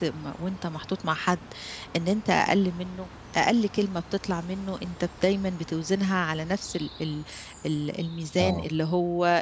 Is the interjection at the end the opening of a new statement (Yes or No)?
No